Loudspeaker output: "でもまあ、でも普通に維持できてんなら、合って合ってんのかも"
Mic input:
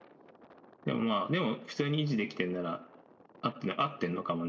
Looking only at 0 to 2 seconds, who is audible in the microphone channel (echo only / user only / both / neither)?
echo only